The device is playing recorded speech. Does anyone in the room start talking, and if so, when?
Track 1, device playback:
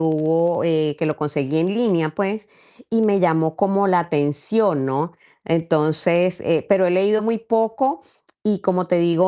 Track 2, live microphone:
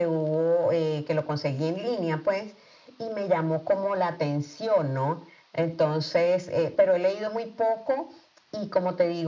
none

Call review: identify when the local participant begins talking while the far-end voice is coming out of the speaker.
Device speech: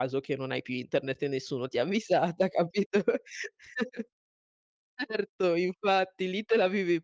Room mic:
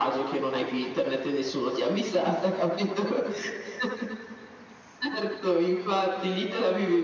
none

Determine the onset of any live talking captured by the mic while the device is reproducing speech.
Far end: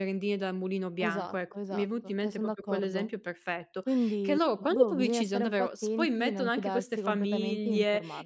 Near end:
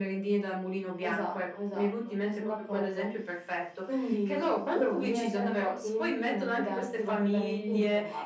none

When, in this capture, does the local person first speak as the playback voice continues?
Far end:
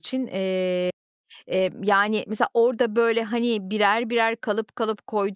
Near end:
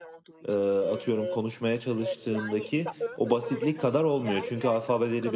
0 s

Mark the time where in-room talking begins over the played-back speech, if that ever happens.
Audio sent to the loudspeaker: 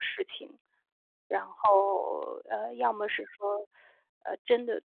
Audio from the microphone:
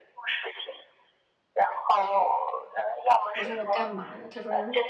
3 s

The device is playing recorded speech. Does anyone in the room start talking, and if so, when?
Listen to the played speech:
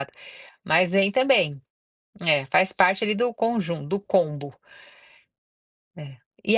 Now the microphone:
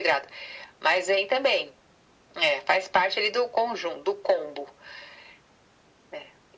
none

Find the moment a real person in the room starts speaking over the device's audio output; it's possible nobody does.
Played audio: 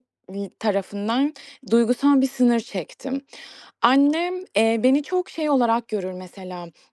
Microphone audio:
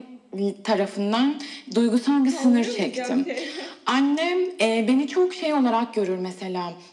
2 s

